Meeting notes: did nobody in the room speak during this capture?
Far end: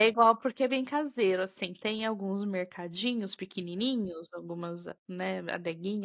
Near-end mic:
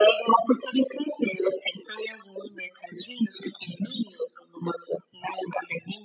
Yes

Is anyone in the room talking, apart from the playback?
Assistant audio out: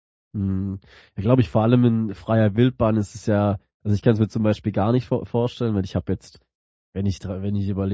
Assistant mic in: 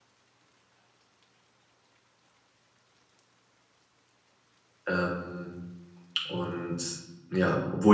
Yes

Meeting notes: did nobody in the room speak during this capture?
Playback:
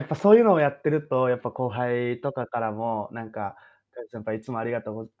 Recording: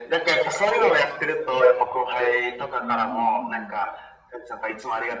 No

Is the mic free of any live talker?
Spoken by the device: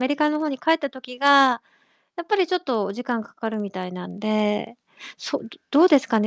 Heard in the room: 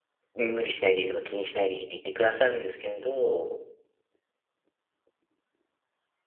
No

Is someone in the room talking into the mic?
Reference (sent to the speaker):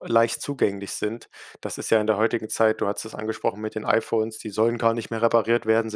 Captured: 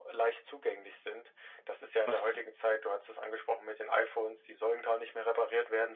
Yes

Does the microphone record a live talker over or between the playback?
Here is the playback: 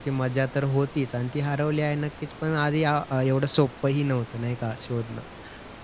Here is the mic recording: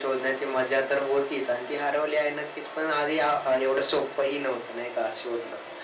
No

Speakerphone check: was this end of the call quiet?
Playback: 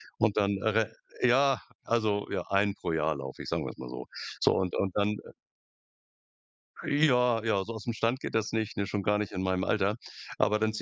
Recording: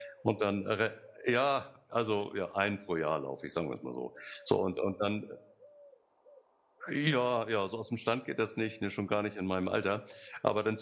Yes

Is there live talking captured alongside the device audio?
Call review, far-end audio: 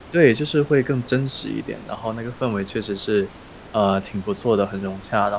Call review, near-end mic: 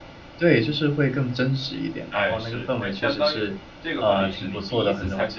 Yes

